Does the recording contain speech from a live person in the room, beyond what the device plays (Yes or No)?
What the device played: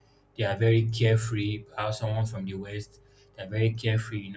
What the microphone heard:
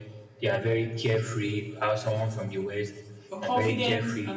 Yes